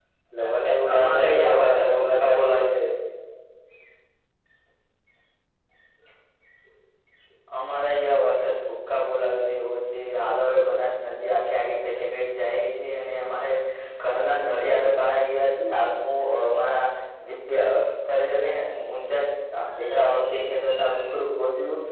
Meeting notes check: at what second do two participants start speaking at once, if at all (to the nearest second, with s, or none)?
1 s